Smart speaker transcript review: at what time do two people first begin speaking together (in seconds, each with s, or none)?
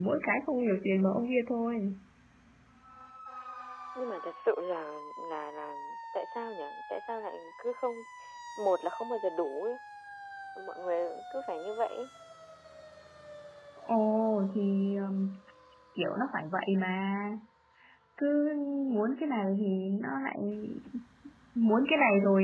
none